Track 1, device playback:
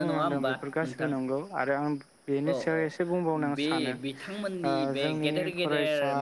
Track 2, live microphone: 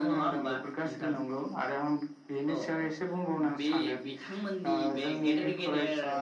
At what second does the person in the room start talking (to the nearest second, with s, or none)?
none